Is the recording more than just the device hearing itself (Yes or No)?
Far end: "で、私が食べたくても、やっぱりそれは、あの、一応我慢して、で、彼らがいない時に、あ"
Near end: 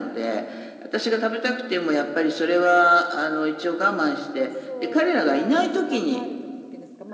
Yes